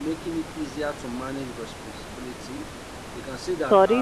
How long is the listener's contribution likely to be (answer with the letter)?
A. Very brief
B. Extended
B